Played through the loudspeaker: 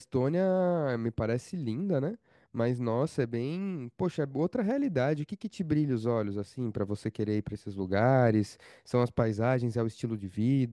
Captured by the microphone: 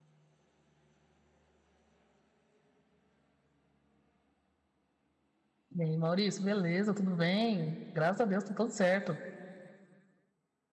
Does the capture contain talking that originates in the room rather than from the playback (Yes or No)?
Yes